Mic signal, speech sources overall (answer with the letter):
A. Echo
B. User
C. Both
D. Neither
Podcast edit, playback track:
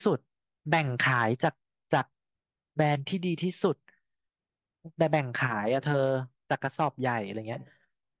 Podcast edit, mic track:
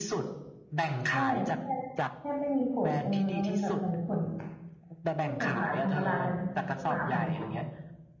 C